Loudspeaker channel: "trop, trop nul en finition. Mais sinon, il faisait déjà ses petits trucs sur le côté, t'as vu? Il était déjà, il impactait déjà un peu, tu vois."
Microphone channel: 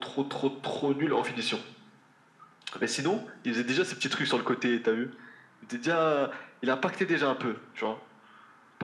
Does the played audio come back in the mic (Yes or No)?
Yes